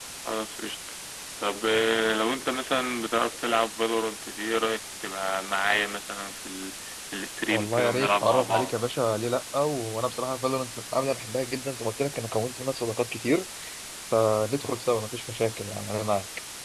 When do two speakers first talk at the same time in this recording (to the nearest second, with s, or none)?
7 s